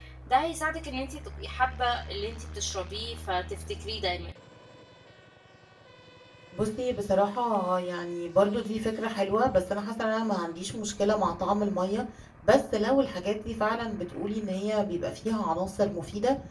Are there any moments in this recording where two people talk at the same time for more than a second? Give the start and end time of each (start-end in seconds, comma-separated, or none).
none